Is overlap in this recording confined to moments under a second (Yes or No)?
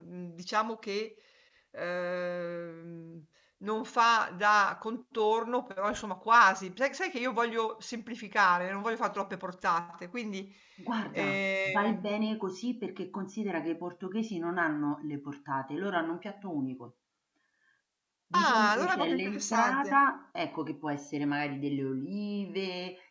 No